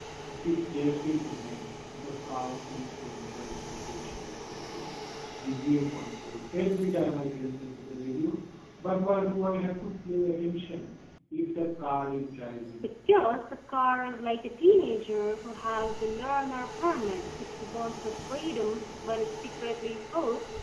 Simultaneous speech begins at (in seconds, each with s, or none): none